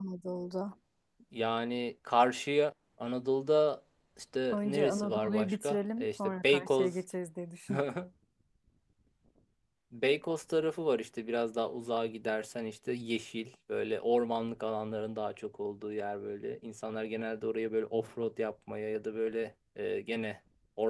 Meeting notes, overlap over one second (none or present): present